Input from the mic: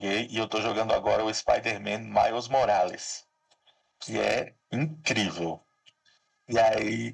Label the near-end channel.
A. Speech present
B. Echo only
B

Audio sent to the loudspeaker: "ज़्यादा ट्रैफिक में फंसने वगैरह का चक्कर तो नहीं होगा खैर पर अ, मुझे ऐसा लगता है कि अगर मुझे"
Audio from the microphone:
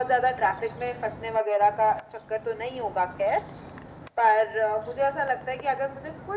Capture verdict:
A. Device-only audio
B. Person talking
A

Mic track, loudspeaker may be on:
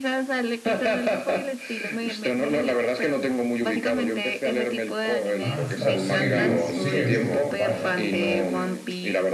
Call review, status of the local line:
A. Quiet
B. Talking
B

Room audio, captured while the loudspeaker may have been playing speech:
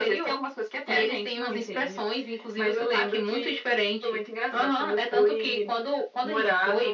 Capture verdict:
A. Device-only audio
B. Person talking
A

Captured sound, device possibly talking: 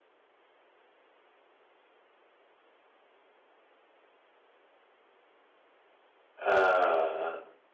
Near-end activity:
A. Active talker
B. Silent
A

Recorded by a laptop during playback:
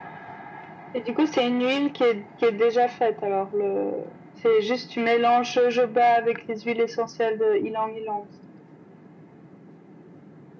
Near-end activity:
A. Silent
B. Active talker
A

